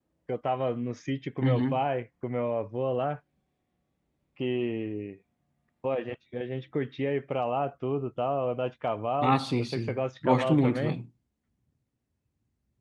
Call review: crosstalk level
present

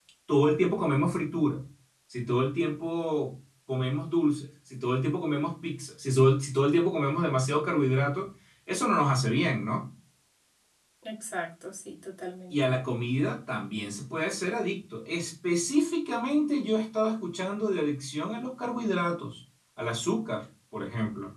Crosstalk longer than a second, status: none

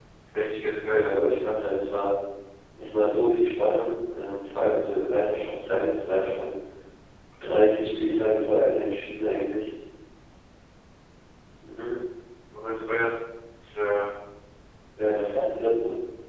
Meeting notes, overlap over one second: none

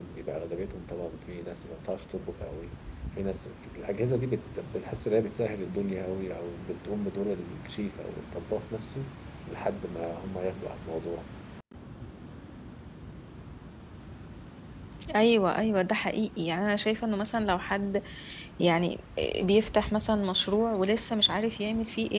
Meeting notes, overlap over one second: none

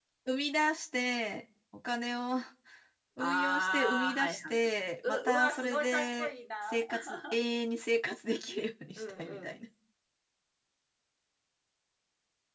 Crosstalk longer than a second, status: present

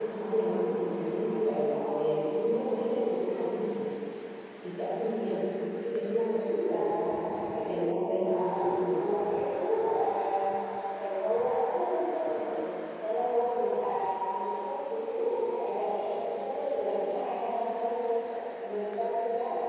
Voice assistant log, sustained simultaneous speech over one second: present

